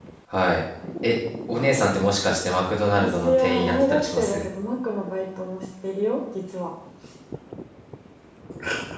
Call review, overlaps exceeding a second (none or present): present